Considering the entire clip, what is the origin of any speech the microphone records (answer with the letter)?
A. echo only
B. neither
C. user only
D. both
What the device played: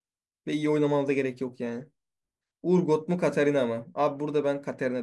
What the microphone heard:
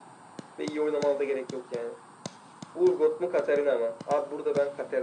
A